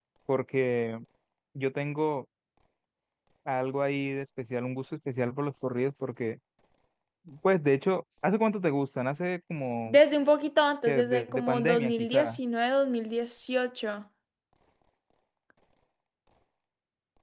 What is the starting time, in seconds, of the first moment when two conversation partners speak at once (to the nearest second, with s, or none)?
11 s